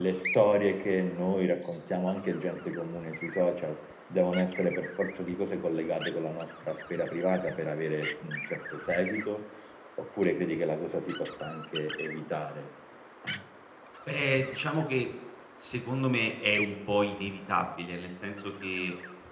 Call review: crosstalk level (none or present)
none